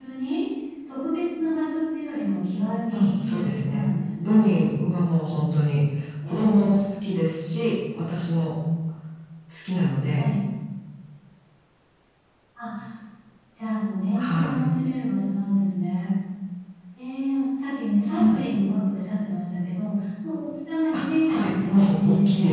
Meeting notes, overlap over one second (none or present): present